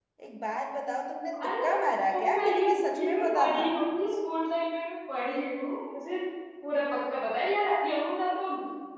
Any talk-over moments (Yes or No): Yes